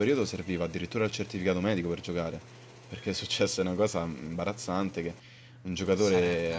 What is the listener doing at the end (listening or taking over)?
listening